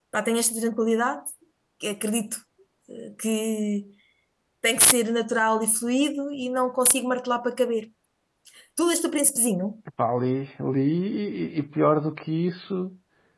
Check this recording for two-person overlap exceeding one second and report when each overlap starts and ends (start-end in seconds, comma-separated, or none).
none